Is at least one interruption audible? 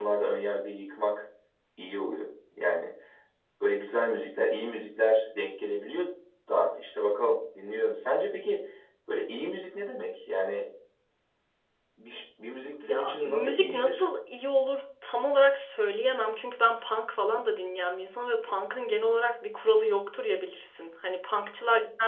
Yes, from 12.8 s

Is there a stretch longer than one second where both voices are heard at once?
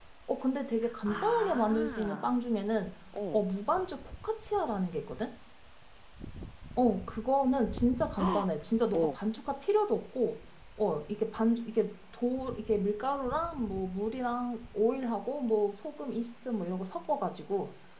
Yes, from 1.1 s

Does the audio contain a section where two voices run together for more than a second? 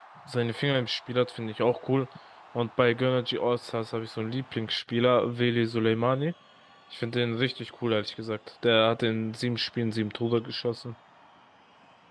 No

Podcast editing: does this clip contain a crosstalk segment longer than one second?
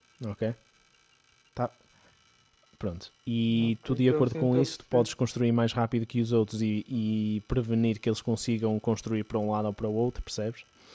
Yes, from 3.5 s

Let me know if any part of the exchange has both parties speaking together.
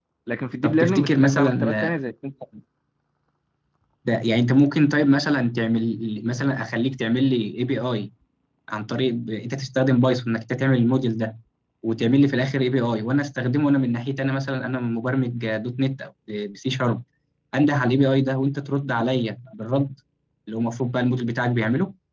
Yes, from 0.6 s

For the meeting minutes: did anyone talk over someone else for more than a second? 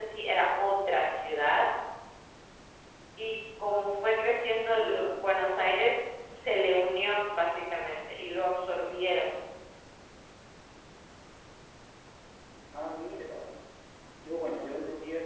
No

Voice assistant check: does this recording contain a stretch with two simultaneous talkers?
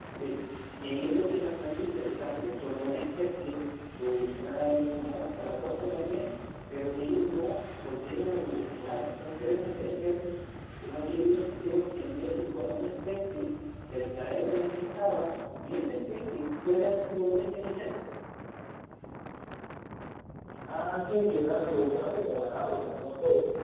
No

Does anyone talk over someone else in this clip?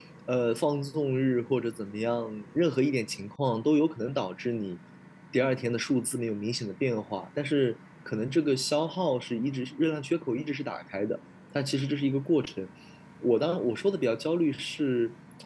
No

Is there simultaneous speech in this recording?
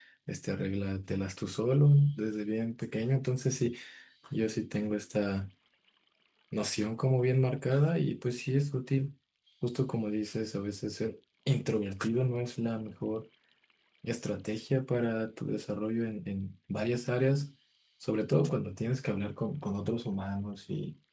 No

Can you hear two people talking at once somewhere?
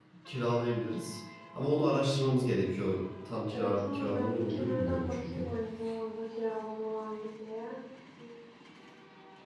Yes, from 3.5 s

